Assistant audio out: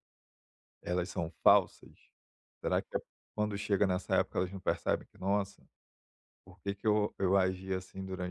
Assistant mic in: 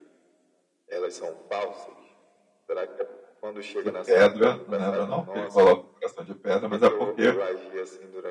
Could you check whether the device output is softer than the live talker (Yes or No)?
Yes